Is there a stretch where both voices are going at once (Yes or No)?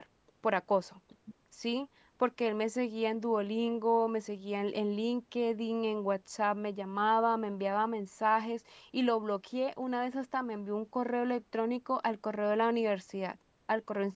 No